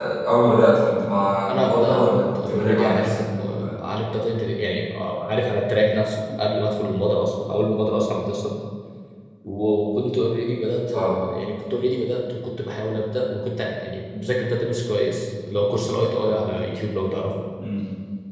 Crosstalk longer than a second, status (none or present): present